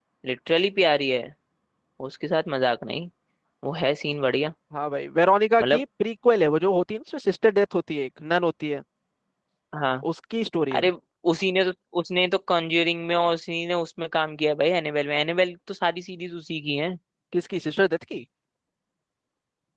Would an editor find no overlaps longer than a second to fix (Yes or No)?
Yes